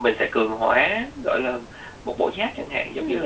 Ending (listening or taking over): taking over